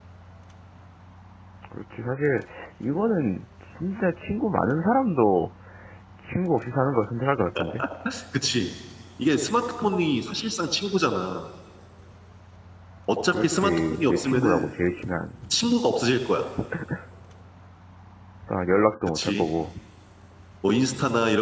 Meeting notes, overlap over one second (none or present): present